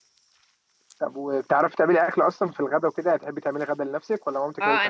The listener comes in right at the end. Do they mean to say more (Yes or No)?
Yes